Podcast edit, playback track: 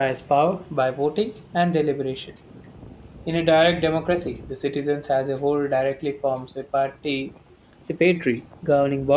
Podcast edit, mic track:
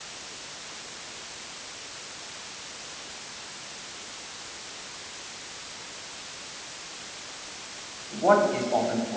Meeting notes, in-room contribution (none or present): present